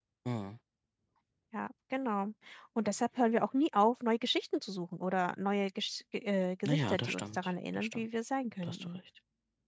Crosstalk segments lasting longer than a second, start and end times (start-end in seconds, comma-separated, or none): 6.7-8.1